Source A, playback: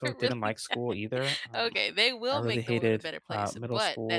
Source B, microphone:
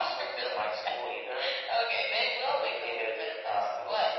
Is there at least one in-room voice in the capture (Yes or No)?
No